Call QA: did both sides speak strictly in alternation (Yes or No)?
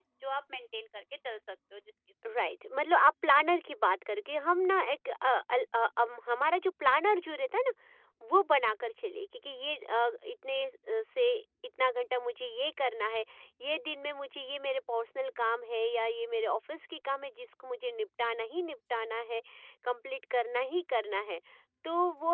Yes